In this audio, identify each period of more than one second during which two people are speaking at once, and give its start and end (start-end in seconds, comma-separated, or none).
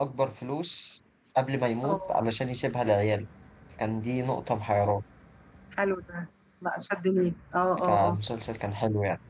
none